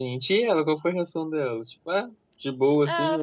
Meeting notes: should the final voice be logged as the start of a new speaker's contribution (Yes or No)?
Yes